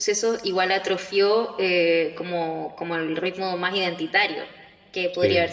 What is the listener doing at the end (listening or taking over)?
listening